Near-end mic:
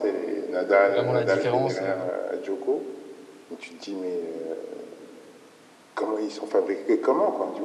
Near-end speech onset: 1 s

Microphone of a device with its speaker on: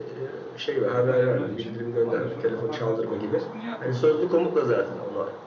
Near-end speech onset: 1 s

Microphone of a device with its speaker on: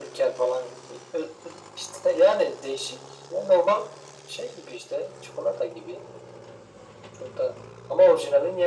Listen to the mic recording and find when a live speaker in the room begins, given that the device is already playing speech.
none

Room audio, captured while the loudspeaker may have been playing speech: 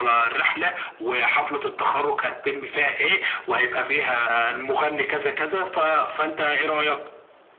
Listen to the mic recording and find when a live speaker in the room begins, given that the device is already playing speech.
none

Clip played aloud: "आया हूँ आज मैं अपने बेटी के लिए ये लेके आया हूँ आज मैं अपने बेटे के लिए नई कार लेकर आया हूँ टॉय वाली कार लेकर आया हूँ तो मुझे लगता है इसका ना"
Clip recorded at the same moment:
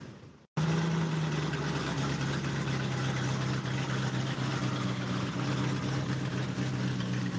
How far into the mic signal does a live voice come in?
none

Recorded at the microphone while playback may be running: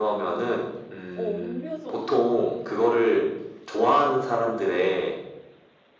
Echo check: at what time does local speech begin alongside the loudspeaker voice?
1 s

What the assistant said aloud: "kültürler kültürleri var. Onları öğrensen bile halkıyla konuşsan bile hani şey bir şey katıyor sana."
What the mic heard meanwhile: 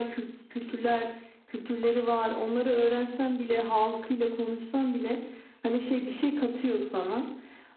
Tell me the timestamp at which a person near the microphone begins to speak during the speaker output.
none

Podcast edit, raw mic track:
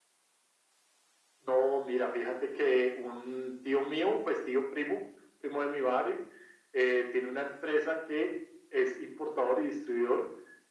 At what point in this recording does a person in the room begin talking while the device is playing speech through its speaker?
none

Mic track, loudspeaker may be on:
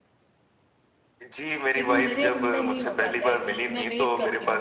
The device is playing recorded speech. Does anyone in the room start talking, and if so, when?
2 s

